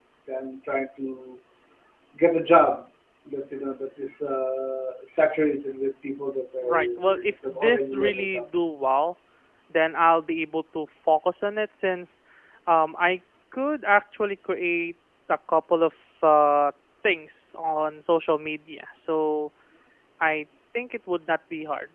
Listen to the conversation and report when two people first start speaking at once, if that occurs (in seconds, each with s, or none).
6.6 s